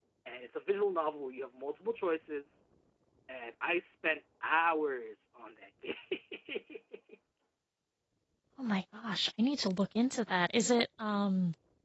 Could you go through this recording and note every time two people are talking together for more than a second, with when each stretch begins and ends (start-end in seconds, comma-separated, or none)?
none